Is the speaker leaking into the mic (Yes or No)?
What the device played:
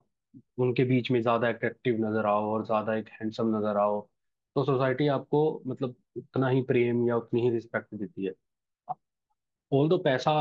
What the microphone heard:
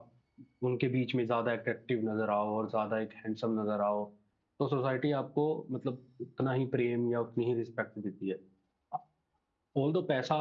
Yes